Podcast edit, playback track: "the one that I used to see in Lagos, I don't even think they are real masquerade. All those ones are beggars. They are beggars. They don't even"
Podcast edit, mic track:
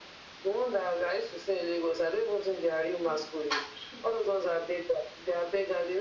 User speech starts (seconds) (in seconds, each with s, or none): none